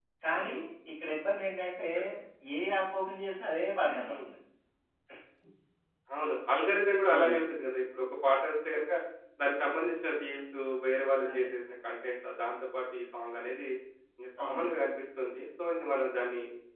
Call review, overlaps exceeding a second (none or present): none